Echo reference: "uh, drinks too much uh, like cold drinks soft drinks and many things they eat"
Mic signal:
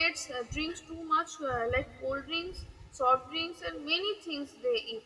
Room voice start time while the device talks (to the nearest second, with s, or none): none